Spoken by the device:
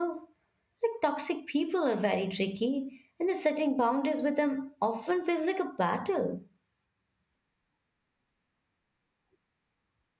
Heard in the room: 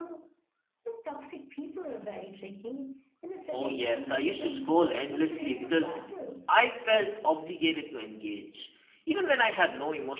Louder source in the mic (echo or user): user